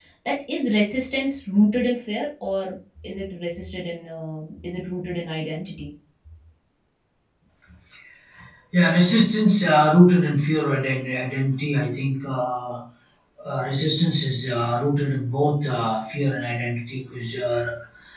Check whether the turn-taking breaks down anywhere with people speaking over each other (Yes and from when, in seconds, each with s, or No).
No